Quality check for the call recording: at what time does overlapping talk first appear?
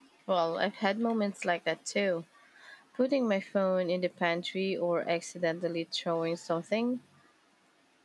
none

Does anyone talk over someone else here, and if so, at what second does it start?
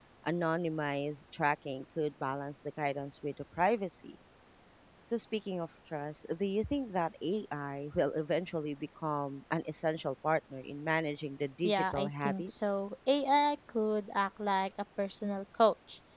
11.6 s

